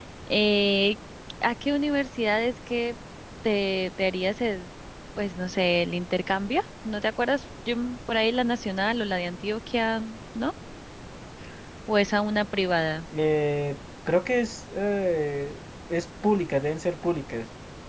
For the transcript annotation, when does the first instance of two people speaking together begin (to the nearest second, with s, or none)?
none